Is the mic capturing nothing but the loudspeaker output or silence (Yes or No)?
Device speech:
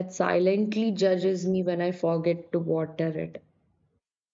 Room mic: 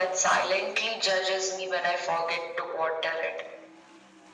Yes